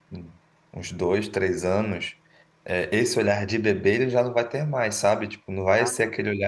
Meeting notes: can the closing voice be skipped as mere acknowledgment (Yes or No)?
Yes